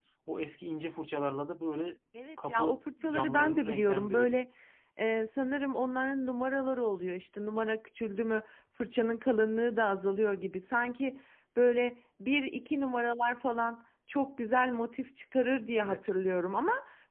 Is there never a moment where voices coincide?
No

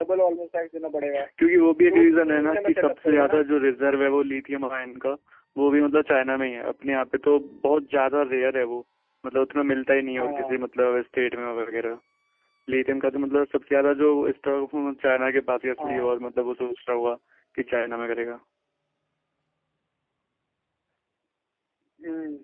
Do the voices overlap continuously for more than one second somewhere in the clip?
Yes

